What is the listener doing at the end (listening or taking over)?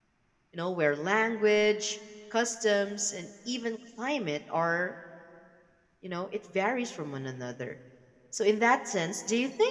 listening